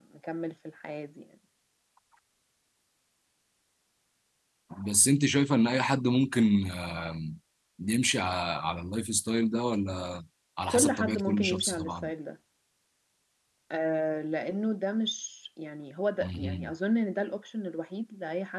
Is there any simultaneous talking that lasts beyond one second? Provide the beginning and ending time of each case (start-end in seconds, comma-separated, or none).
10.7-12.1